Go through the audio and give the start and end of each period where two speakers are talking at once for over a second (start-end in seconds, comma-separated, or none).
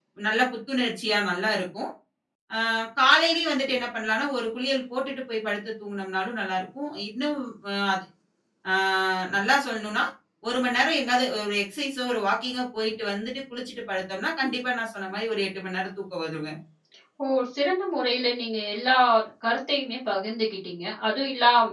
none